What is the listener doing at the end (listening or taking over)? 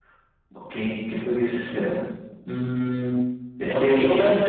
taking over